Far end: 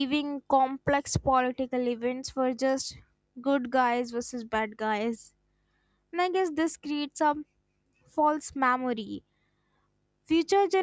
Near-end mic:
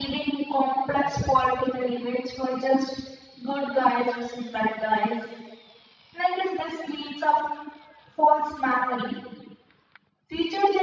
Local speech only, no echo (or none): none